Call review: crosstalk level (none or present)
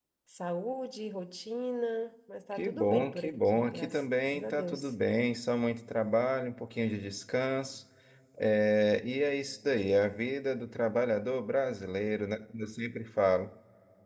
present